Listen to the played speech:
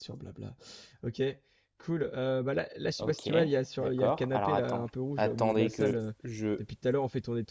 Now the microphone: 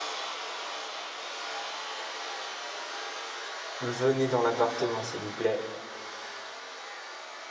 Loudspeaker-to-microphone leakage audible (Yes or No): No